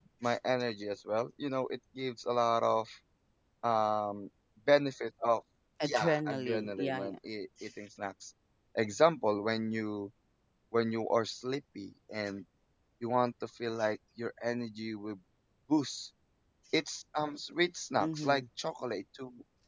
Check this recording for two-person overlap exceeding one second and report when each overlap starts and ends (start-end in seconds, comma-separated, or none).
5.8-7.2